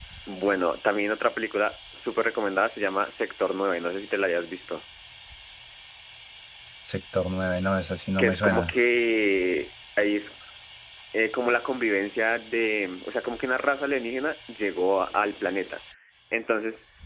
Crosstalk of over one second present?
No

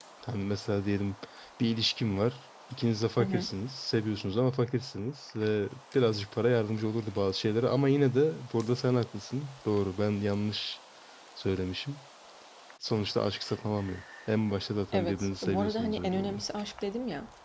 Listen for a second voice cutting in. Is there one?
Yes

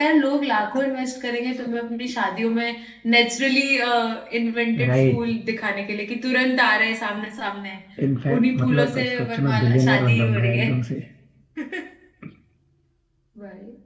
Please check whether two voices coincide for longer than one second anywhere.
Yes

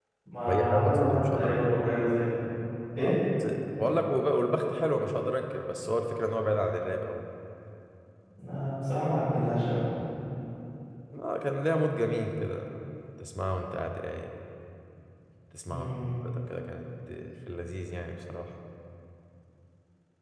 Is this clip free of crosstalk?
No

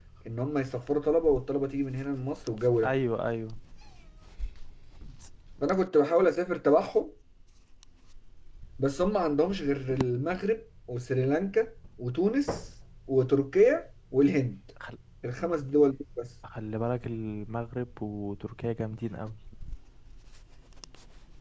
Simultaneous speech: No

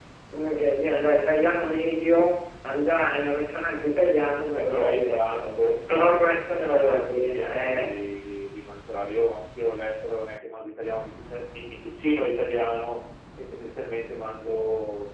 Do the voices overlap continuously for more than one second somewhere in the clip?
Yes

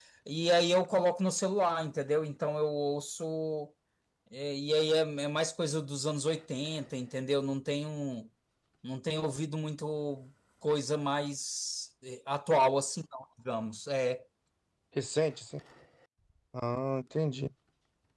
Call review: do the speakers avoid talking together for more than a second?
Yes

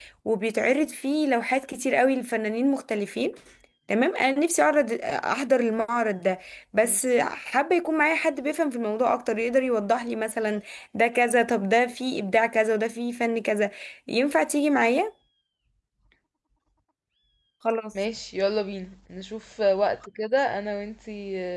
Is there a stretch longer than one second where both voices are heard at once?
No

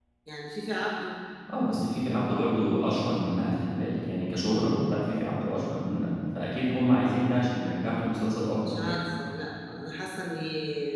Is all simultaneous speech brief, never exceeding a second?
Yes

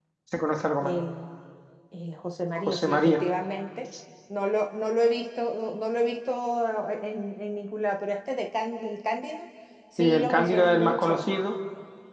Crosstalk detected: Yes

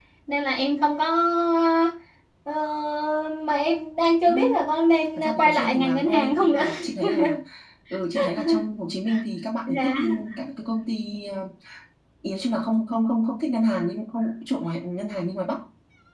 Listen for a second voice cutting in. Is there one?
Yes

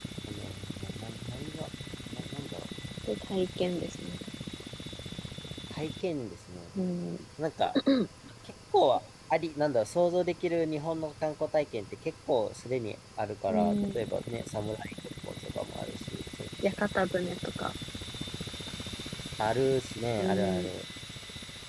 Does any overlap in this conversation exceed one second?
No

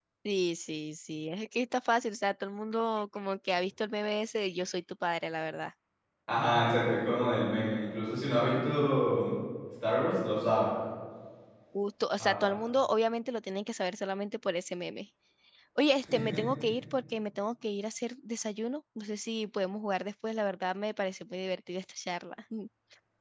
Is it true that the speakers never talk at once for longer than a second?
Yes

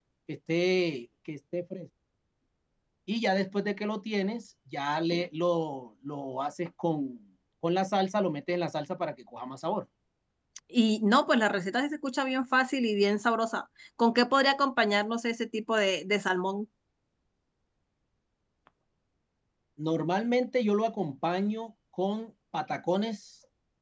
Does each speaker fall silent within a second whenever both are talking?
Yes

